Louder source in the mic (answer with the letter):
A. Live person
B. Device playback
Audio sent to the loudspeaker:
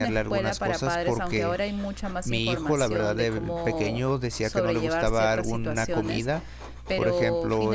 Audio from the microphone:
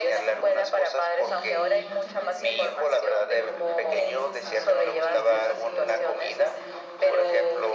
B